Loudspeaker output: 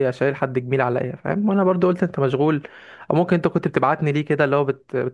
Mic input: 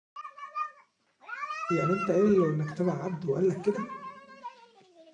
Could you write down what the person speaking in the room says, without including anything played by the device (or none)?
يعني انت قايل له انك تبع عبده وقال لك كده